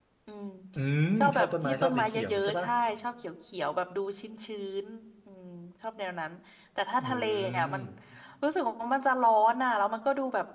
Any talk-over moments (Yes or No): Yes